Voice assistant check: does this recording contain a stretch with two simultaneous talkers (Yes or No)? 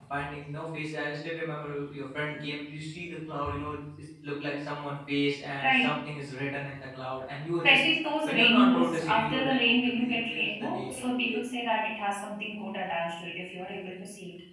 Yes